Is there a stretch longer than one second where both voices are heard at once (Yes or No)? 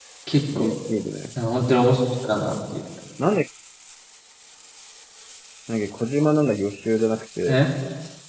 No